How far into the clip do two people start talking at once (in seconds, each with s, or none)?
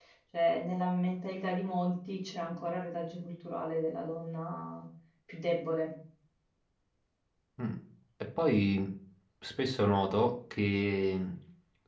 none